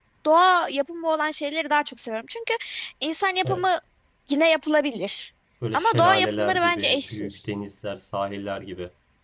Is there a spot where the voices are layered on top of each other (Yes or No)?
Yes